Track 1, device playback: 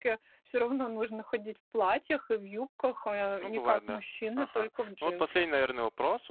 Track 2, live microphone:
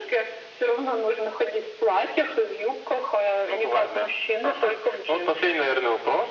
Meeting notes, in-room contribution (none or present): none